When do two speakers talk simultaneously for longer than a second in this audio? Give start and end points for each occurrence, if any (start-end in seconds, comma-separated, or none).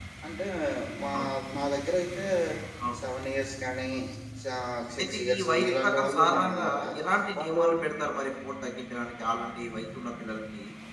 5.0-6.7